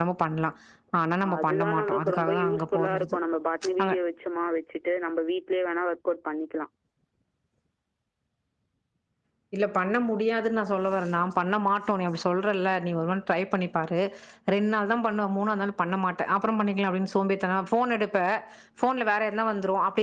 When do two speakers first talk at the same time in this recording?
1 s

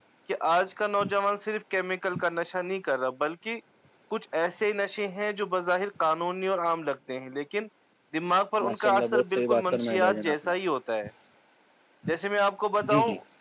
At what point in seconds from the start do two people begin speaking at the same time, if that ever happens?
9 s

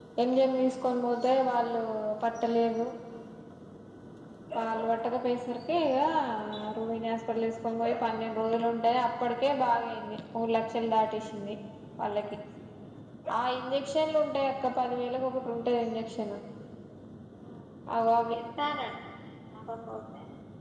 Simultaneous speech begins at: none

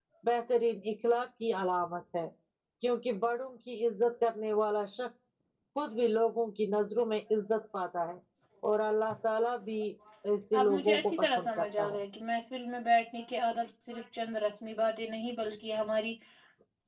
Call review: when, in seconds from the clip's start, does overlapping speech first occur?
11 s

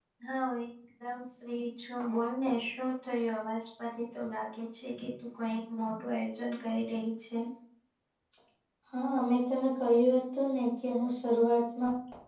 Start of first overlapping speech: none

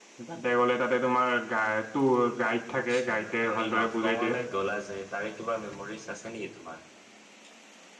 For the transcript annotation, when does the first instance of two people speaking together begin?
3 s

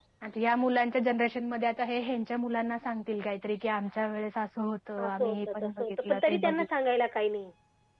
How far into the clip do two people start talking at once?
5 s

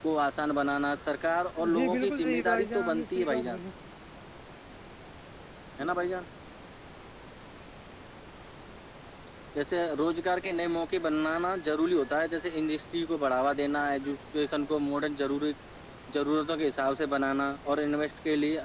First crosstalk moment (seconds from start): 2 s

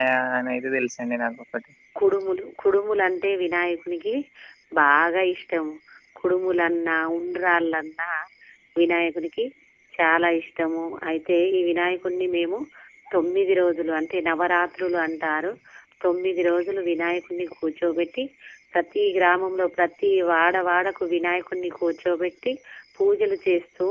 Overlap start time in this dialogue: none

